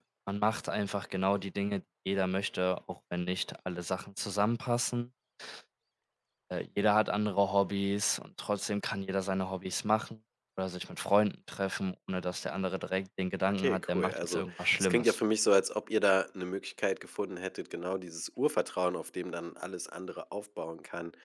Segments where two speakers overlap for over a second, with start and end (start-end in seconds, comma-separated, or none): 13.5-15.2